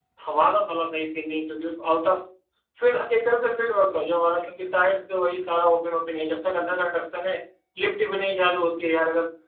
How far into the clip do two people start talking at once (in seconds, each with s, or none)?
none